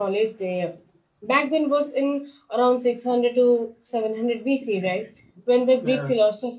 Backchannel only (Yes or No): Yes